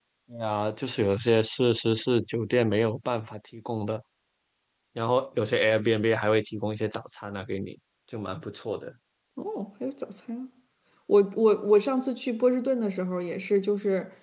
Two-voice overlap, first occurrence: none

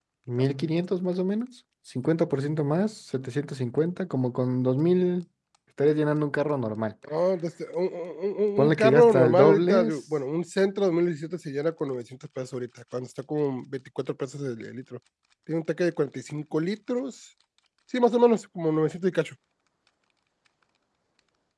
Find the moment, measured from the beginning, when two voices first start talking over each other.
8.6 s

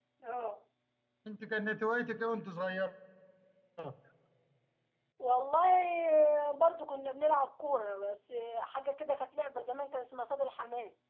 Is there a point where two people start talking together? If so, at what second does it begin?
none

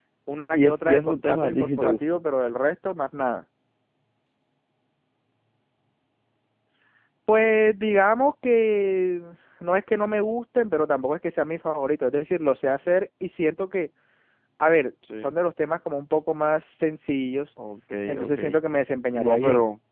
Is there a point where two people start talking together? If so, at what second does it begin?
0.5 s

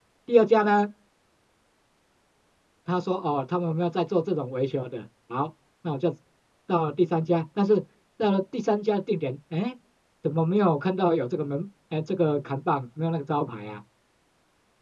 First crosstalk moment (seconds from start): none

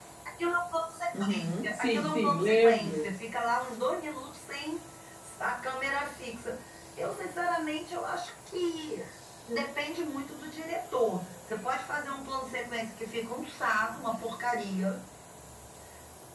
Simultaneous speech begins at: 1.2 s

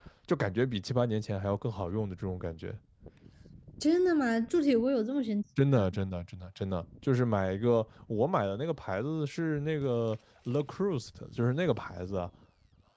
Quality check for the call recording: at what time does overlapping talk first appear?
none

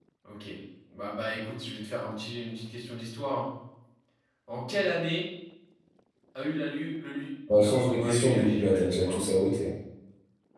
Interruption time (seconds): 7.5 s

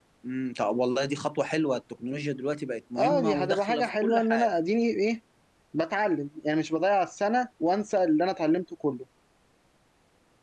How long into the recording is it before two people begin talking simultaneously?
3.0 s

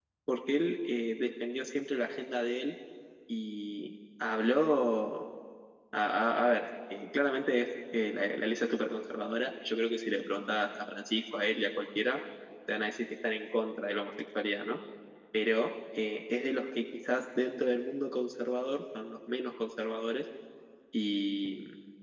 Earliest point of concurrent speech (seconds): none

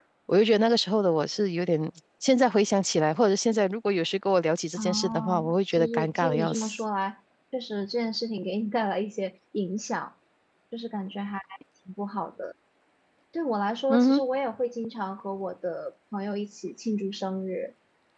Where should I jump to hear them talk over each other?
4.8 s

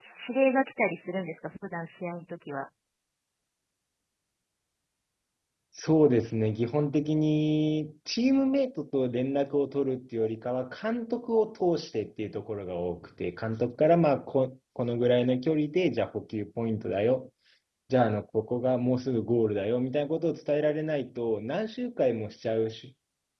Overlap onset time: none

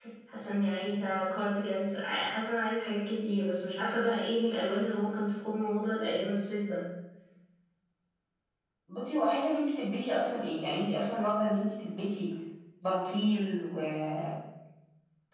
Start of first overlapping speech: none

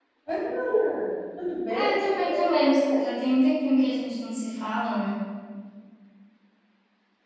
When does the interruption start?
1.7 s

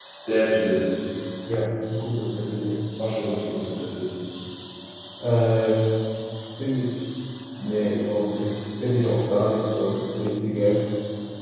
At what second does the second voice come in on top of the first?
none

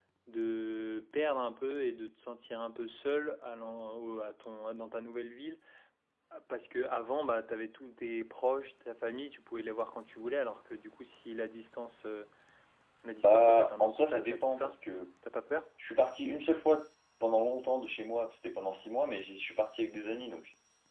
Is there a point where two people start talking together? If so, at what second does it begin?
13.2 s

